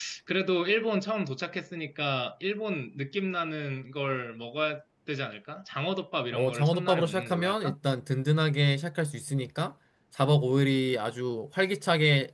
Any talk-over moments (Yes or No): Yes